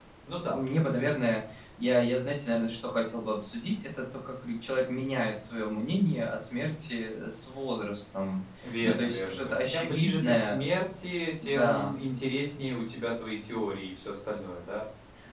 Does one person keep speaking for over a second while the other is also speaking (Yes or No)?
Yes